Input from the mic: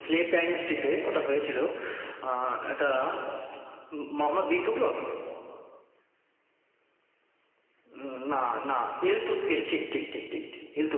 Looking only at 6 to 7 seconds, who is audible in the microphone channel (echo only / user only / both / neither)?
neither